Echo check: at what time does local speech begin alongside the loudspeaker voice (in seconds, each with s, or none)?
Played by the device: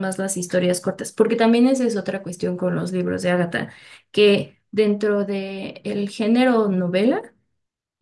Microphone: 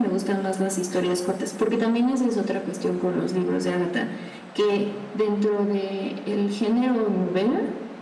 none